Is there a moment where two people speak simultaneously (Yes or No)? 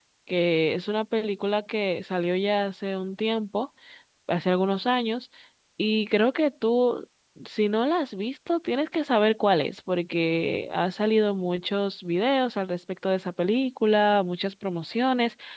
No